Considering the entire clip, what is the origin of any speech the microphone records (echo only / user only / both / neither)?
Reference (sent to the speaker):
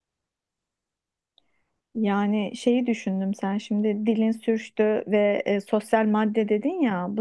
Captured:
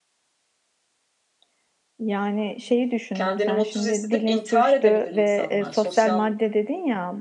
both